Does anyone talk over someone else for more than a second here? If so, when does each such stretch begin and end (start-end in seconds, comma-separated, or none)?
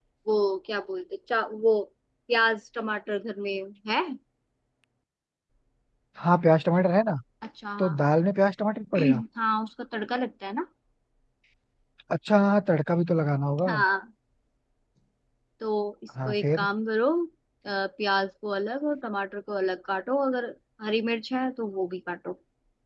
none